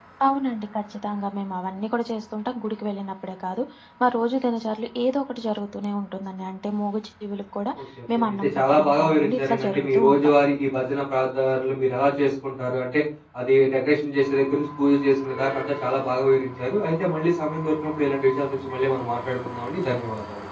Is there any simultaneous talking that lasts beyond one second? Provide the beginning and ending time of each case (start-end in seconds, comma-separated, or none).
8.1-10.3